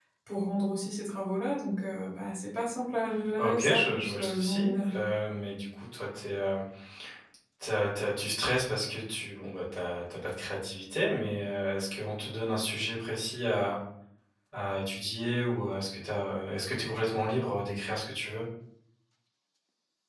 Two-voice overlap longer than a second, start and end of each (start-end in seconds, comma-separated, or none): 3.4-5.1